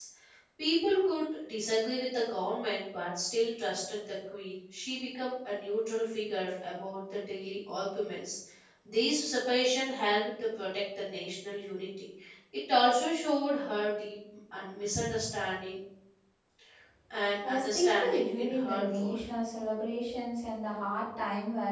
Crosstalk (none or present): present